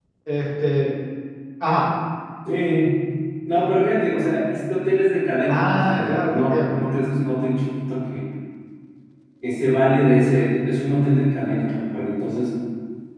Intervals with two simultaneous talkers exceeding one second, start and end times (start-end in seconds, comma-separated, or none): 5.5-6.8